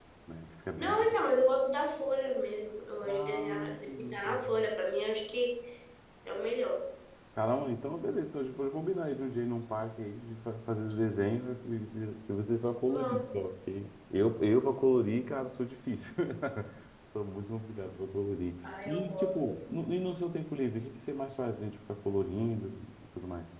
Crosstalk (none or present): present